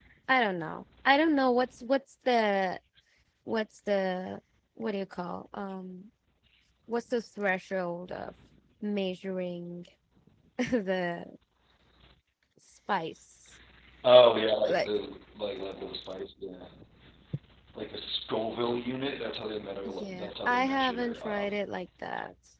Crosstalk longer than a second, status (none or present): present